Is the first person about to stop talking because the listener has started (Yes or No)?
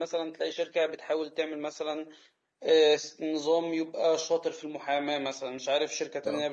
No